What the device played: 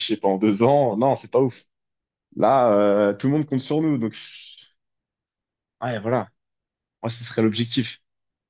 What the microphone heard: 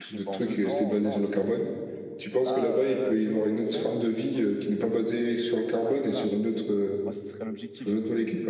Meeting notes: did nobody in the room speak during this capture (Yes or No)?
No